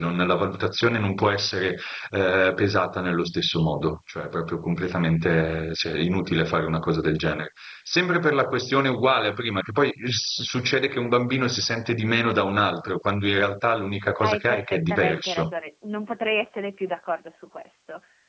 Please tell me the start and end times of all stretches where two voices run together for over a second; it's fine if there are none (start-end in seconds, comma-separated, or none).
14.2-15.5